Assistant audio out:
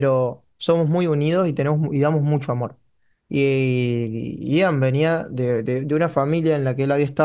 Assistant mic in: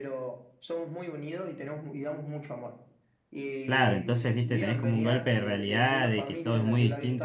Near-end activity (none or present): present